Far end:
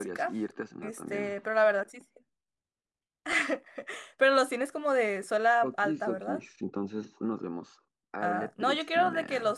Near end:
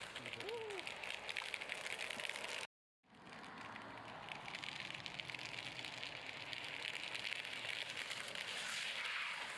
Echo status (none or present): none